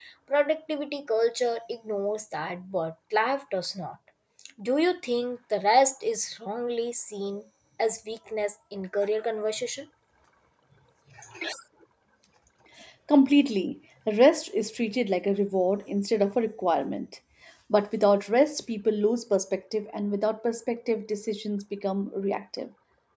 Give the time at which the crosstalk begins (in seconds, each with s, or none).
none